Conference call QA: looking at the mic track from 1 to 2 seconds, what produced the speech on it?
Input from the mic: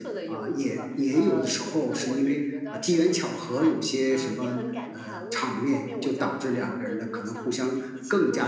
both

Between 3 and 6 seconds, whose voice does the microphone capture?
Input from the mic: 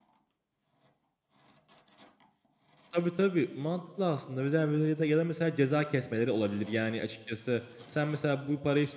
user only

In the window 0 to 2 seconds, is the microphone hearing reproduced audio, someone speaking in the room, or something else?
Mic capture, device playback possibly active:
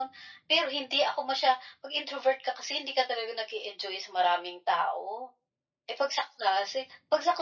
echo only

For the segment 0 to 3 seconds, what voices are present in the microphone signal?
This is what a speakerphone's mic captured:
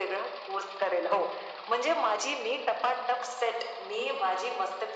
echo only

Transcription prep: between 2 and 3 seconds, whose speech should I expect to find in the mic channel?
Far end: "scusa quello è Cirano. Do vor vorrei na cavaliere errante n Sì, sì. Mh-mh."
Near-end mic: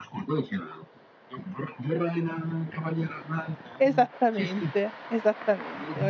echo only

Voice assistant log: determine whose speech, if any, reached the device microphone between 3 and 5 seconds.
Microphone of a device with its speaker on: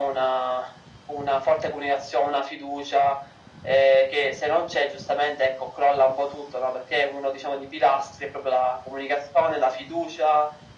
echo only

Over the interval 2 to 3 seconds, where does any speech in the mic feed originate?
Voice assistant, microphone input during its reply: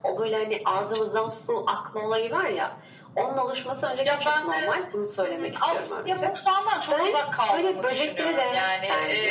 echo only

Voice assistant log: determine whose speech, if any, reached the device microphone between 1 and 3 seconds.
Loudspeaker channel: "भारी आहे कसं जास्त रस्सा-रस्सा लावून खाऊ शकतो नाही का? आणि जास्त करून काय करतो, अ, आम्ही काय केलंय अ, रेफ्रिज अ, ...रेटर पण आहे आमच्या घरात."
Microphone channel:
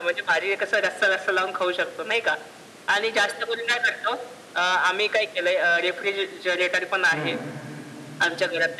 echo only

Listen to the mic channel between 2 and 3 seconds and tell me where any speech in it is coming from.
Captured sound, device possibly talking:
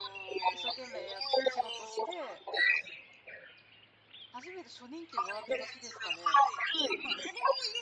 both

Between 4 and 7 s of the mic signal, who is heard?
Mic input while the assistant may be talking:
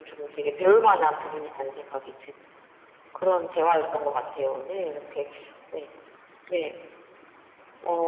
echo only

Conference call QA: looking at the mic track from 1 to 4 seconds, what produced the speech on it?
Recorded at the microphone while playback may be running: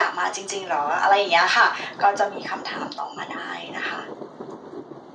echo only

